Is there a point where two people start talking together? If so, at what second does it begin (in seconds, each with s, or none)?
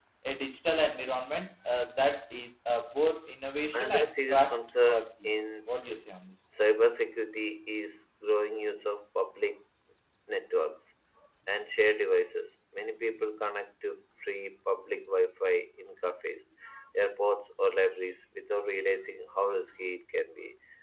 3.7 s